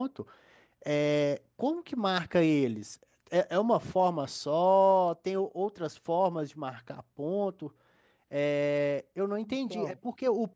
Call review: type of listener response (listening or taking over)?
listening